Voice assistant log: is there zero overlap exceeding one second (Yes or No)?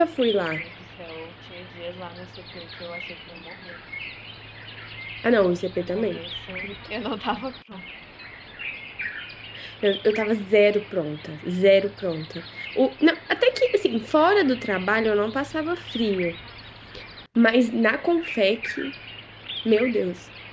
Yes